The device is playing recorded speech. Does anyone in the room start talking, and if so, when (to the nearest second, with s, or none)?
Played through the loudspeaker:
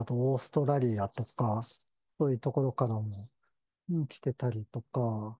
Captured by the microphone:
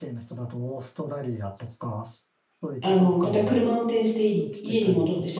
3 s